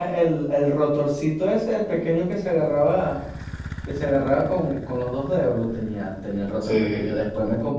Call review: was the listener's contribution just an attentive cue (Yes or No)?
Yes